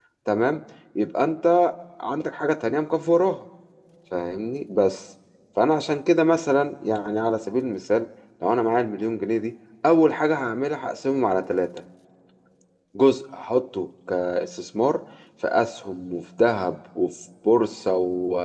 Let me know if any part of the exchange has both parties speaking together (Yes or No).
No